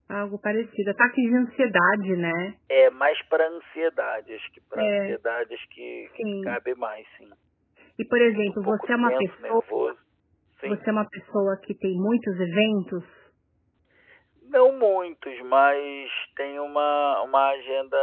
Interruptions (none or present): present